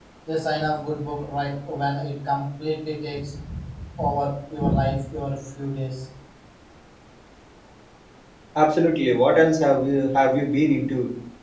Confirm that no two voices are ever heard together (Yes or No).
Yes